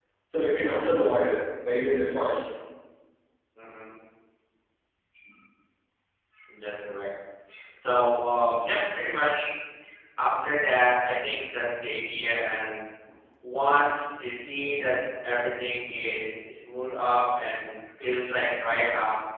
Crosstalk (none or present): none